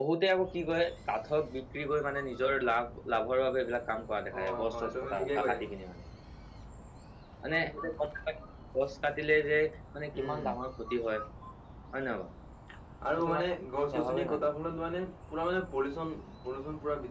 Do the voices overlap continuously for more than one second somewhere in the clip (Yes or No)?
Yes